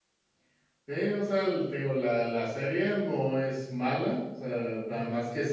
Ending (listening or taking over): listening